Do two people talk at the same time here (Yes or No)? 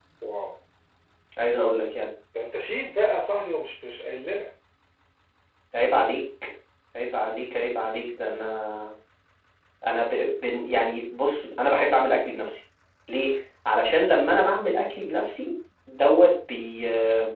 No